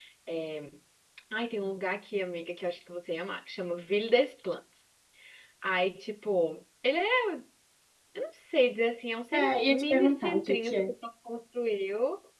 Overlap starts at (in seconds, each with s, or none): 9.3 s